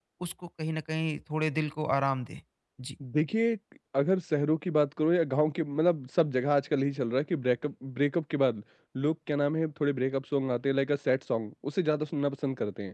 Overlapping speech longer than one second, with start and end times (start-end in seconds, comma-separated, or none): none